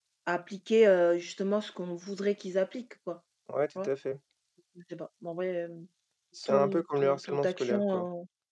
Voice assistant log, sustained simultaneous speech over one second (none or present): present